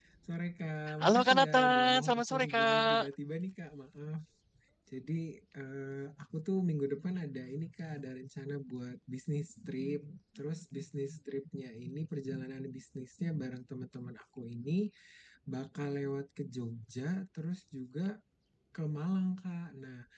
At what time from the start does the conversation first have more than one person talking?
1.0 s

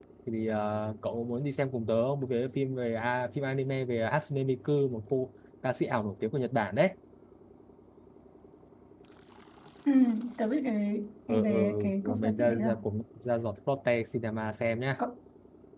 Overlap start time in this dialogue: 11.3 s

